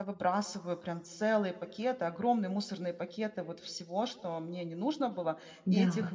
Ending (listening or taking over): listening